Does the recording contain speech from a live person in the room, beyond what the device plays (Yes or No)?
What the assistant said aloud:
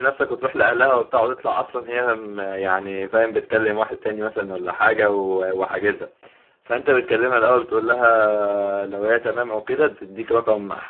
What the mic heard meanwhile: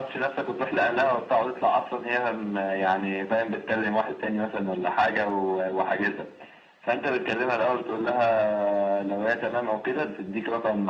No